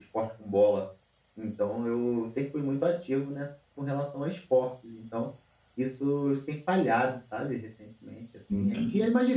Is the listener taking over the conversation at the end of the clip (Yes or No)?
No